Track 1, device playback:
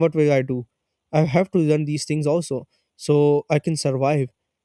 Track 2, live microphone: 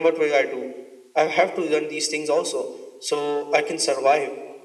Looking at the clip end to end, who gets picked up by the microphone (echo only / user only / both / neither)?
echo only